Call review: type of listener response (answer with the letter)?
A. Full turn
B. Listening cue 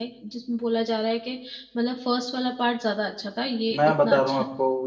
A